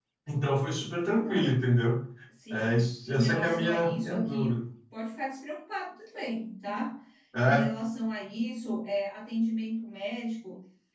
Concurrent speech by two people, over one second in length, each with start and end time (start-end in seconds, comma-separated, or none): 2.5-4.5